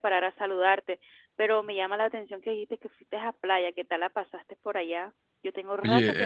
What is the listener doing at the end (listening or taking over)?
taking over